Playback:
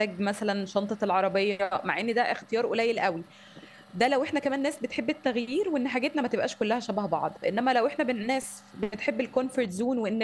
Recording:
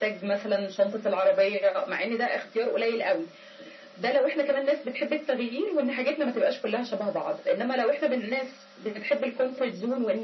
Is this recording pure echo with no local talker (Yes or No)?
Yes